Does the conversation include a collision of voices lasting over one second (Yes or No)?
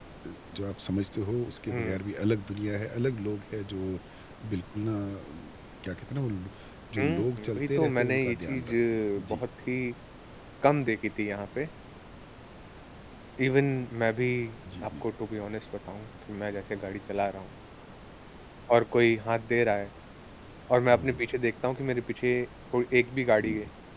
Yes